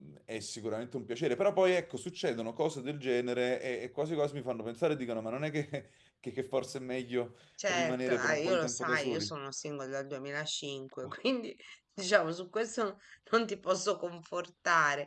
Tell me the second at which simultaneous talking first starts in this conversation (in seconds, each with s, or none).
7.6 s